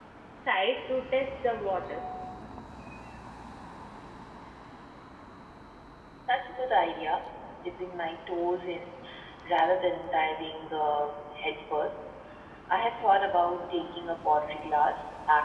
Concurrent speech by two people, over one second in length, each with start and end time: none

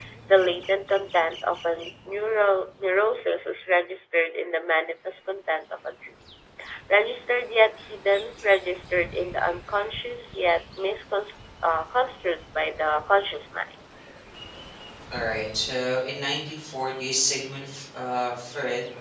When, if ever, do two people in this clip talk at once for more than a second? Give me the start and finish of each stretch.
none

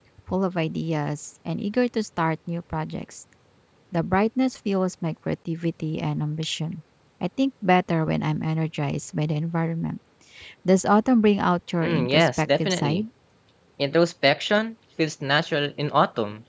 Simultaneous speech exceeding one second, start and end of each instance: 11.8-13.0

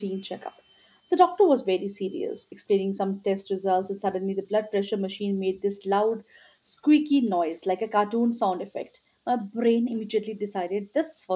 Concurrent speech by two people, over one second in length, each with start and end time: none

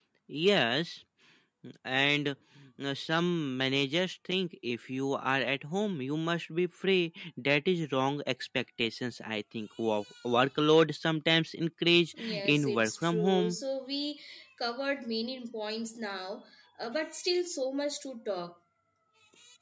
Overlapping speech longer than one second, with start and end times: 12.2-13.6

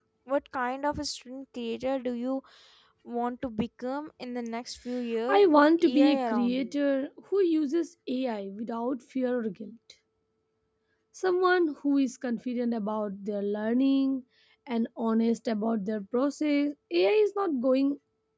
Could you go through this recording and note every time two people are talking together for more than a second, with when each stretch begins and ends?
5.3-6.7

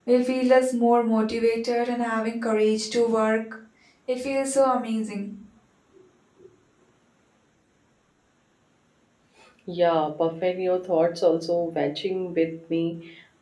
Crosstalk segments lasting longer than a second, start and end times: none

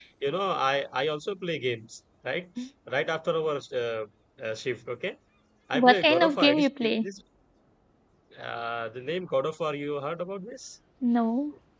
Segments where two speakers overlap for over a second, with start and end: 5.7-7.0

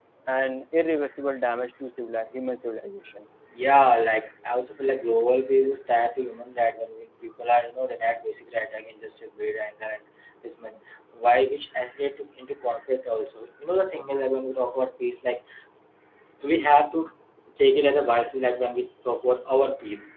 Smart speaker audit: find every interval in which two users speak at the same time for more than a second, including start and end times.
none

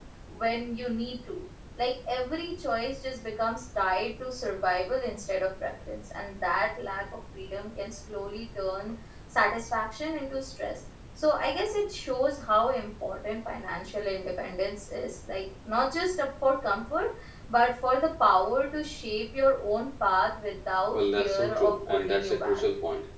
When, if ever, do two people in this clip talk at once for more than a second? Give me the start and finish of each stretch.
20.9-22.6

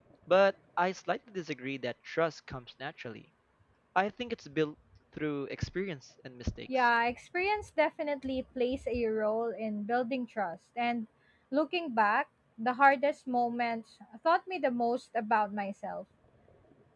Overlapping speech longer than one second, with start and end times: none

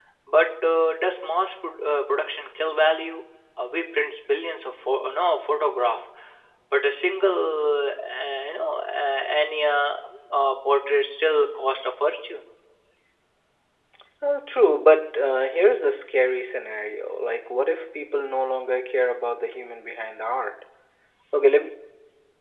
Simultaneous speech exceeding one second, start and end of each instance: none

